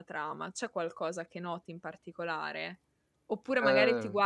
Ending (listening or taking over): listening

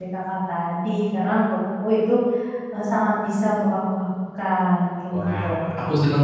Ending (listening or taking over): taking over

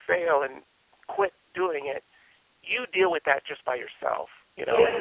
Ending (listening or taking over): listening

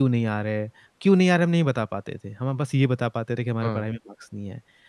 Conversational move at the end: listening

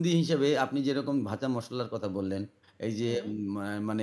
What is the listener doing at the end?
listening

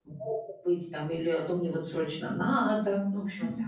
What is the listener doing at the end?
taking over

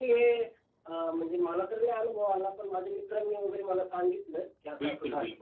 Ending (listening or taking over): taking over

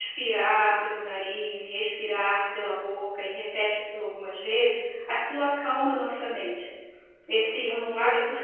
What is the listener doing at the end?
listening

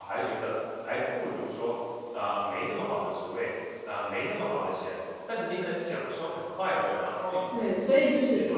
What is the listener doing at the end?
taking over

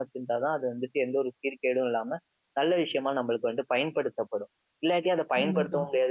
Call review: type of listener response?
listening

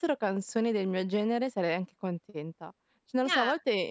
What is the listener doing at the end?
listening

